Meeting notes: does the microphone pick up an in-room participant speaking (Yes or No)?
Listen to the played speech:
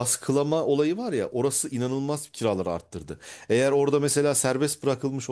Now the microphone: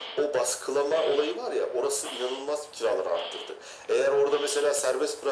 No